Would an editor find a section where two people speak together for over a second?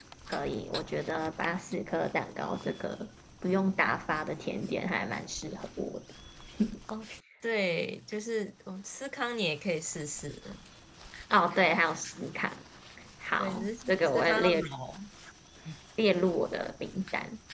Yes, from 13.4 s

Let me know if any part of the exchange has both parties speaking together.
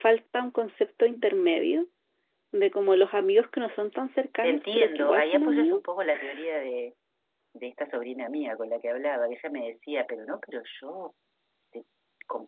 Yes, from 4.4 s

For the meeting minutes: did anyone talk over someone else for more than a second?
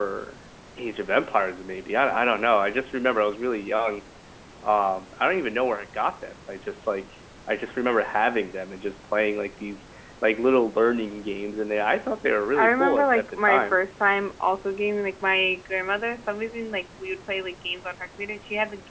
Yes, from 12.6 s

